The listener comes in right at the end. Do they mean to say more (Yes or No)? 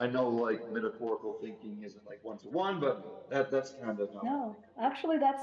Yes